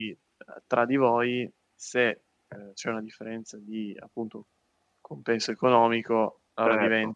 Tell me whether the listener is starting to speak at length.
No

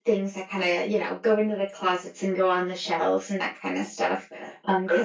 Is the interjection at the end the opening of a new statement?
No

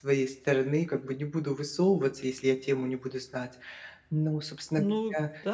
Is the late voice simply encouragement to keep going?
No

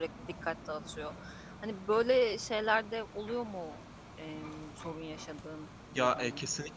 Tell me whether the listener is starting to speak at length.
Yes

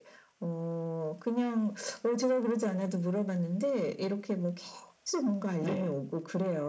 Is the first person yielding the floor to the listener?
No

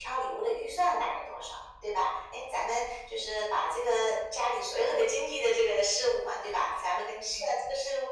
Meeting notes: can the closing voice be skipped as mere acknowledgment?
Yes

